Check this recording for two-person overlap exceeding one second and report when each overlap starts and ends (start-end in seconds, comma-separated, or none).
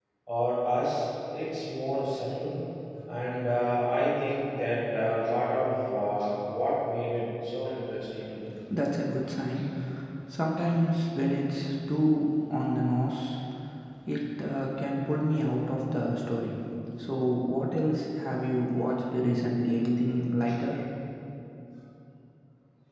none